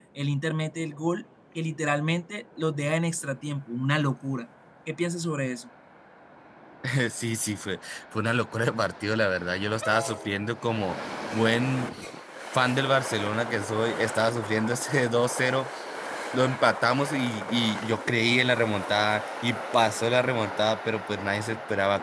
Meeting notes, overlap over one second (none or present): none